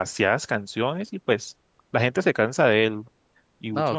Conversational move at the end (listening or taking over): taking over